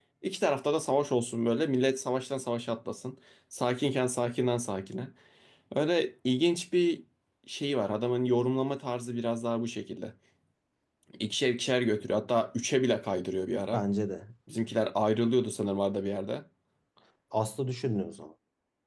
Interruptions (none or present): none